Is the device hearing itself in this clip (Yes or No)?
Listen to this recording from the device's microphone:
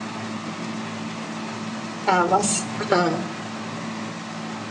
No